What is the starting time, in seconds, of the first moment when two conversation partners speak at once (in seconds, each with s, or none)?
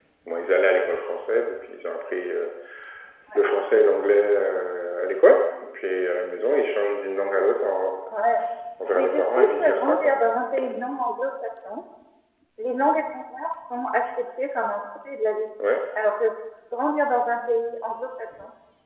8.9 s